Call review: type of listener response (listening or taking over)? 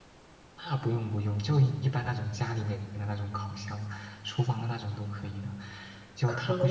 listening